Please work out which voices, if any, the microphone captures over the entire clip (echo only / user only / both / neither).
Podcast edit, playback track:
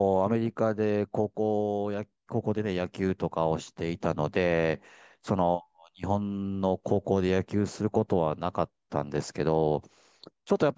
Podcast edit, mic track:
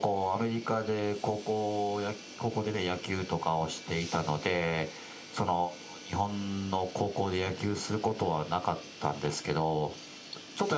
echo only